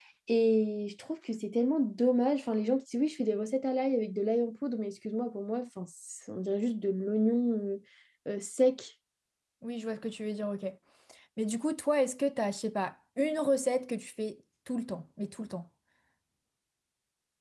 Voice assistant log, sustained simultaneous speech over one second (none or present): none